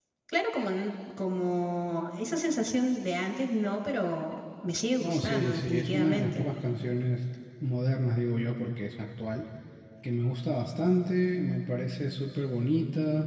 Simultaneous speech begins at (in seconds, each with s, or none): 5.0 s